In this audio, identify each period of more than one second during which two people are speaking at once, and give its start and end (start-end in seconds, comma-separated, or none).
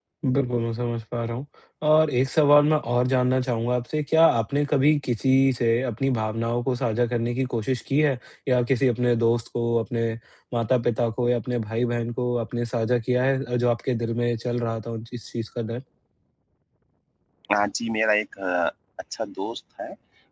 none